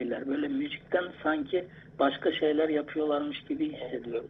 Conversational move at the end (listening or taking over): taking over